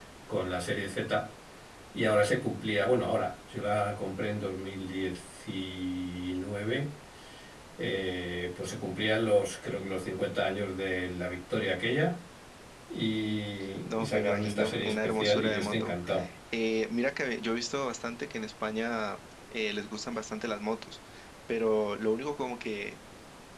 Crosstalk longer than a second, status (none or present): present